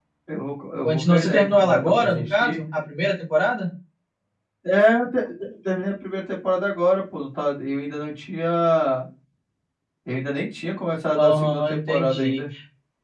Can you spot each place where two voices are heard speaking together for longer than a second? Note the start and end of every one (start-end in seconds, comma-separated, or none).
0.8-2.6, 11.2-12.4